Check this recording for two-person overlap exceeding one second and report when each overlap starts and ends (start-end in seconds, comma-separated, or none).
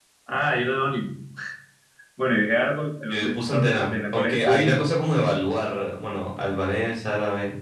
3.1-4.7